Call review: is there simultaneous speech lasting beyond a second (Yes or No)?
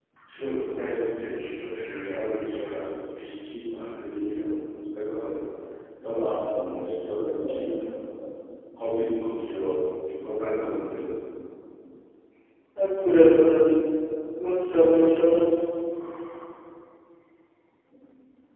No